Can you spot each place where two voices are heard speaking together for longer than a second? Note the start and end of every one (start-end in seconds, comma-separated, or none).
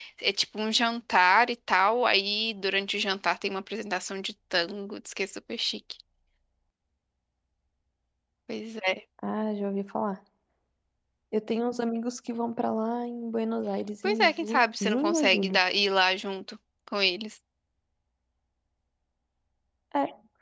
14.0-15.6